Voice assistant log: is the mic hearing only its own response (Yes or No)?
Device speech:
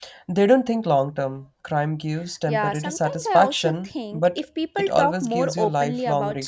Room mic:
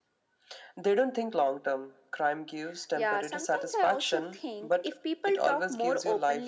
Yes